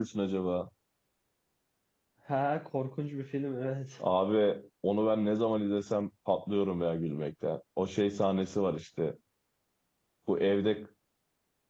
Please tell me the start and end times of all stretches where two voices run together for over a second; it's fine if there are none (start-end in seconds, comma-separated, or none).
none